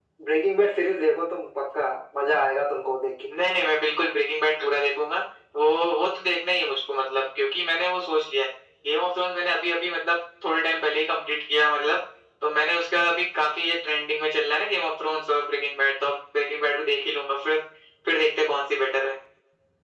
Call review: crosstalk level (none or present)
none